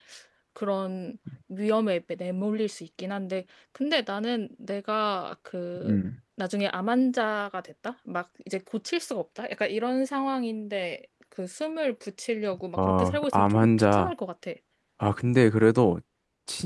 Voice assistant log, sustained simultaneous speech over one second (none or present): present